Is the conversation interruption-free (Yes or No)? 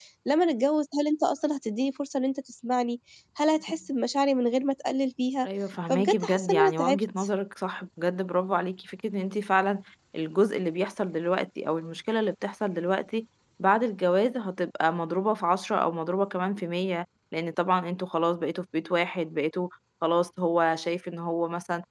No